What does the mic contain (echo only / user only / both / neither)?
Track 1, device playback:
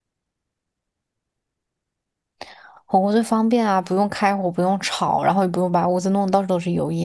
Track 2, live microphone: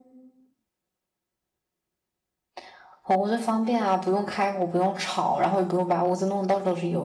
echo only